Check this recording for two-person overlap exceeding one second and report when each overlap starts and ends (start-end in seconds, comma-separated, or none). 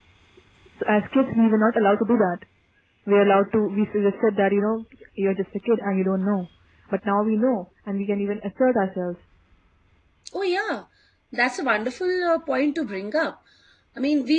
none